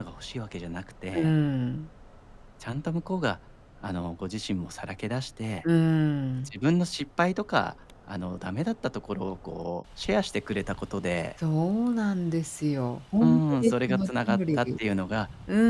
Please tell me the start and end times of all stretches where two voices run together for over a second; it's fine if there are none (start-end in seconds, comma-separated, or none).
13.2-14.7